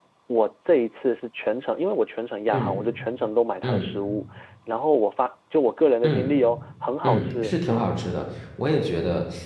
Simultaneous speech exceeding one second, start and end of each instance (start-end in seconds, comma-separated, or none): none